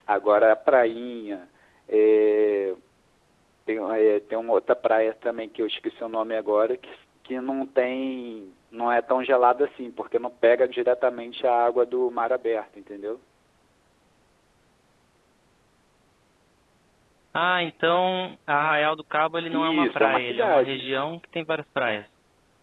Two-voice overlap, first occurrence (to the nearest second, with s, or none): 20 s